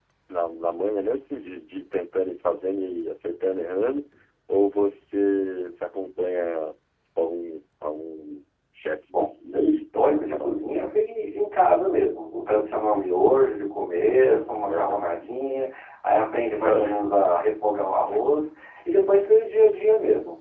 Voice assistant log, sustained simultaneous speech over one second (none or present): present